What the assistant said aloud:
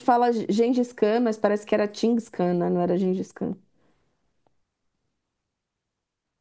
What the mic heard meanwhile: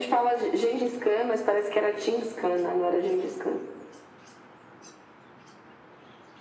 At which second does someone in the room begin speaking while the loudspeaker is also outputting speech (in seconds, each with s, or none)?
none